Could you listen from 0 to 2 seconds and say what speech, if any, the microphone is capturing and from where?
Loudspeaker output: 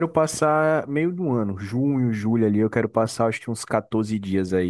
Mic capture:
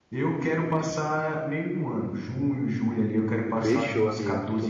echo only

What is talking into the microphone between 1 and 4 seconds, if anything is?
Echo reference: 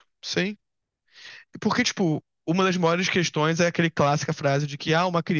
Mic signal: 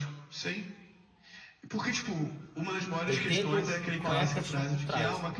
both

